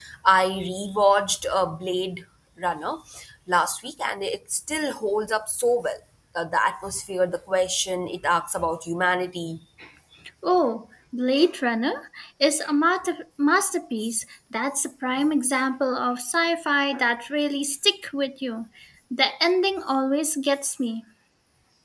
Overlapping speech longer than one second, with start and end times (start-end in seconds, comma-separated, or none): none